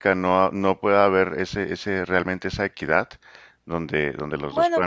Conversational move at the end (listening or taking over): taking over